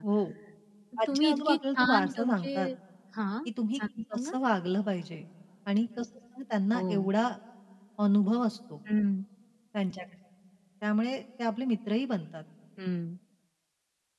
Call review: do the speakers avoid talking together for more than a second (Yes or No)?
No